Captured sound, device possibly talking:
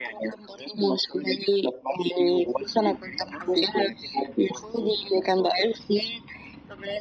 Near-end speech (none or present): none